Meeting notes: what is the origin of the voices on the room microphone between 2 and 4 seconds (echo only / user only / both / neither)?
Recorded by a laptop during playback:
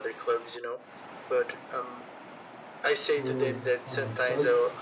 both